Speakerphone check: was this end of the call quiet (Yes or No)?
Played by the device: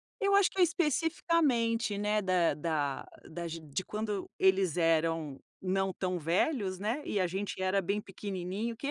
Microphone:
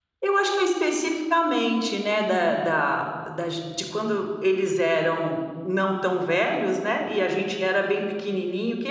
No